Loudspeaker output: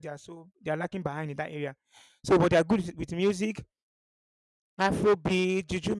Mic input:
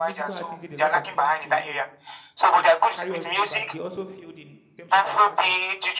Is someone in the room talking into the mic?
Yes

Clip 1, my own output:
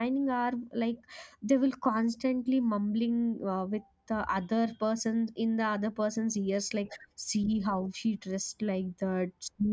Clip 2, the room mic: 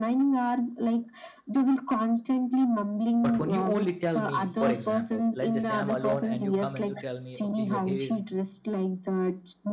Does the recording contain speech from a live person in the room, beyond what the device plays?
Yes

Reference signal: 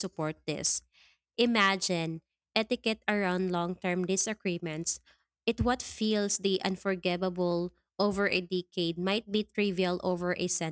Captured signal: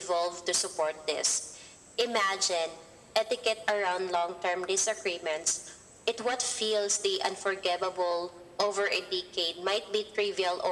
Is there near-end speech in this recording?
No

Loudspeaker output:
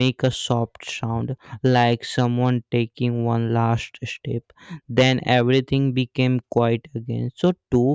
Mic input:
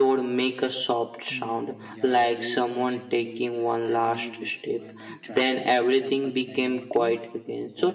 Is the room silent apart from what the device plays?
No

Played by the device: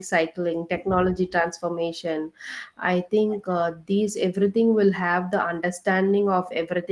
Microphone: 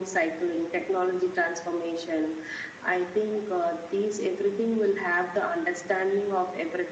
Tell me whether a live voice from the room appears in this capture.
No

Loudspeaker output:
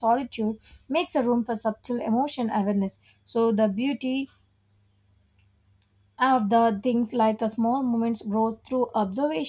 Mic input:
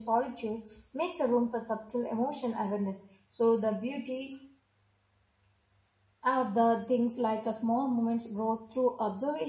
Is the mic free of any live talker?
Yes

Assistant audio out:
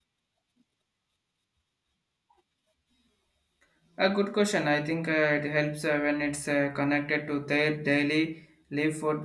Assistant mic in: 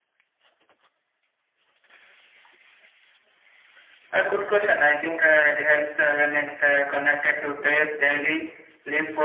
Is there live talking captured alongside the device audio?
No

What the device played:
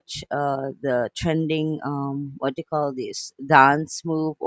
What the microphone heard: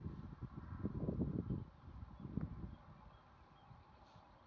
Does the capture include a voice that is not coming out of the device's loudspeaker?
No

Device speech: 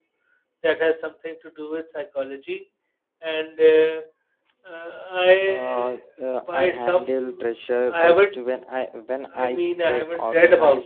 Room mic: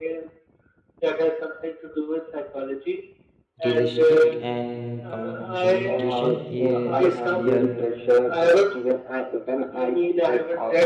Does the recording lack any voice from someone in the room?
No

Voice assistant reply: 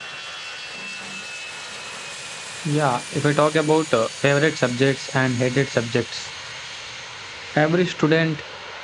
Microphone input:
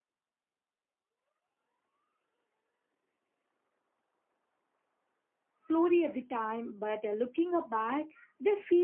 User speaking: Yes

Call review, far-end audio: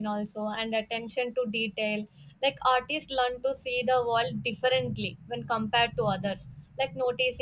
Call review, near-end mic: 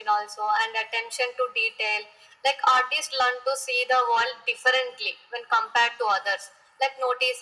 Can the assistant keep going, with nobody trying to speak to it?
Yes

